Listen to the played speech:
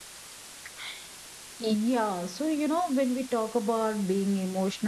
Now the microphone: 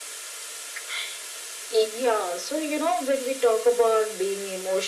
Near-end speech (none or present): none